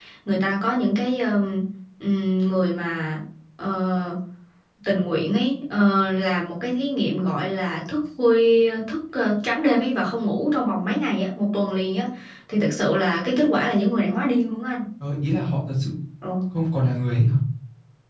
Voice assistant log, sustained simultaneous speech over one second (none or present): none